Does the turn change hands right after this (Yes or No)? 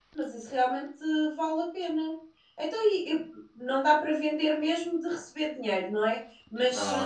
No